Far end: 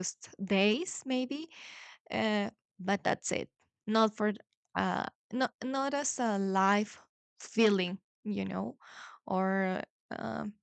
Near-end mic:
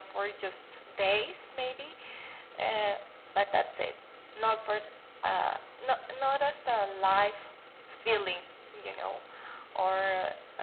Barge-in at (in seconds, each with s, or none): none